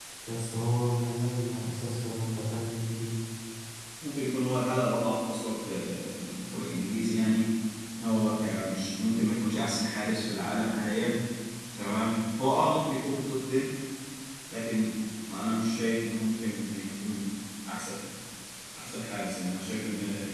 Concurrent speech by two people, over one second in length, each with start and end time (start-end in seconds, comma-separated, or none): none